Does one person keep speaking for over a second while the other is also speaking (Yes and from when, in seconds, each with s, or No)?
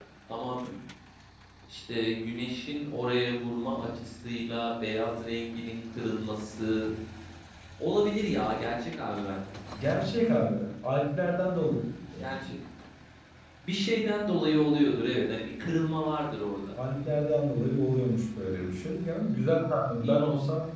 No